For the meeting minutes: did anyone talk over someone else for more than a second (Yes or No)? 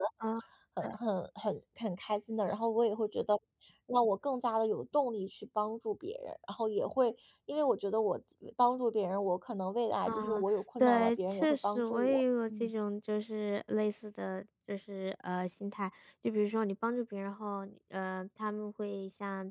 Yes